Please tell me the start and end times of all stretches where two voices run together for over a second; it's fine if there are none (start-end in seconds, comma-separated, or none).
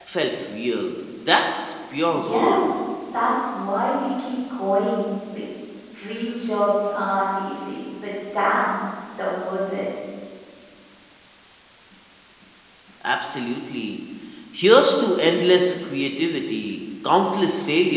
none